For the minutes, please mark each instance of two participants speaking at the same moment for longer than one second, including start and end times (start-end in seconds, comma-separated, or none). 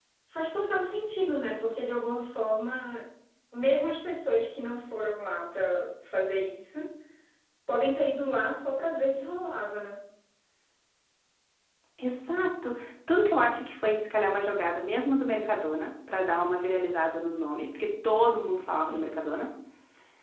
none